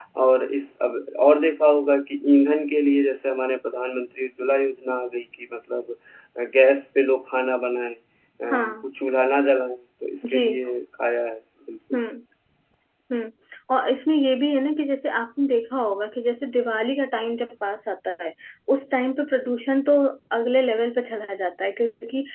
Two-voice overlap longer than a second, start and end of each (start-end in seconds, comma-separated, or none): none